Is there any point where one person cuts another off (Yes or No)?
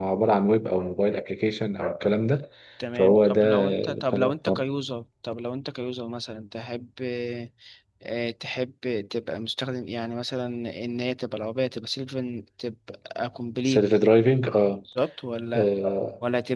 Yes